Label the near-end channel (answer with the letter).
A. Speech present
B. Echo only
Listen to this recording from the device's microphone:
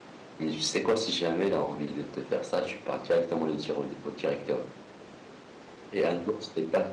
A